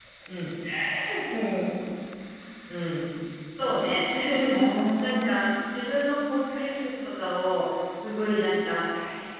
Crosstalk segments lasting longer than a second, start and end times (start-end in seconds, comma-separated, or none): none